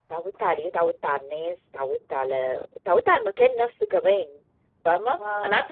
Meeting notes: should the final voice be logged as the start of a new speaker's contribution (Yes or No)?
No